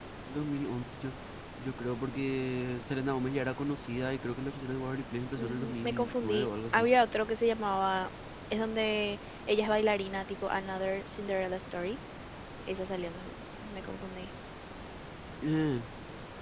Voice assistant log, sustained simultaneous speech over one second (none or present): present